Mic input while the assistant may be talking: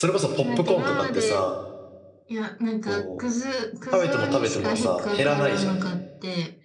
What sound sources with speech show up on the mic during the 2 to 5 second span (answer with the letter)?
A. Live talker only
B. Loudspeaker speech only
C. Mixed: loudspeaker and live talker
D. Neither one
C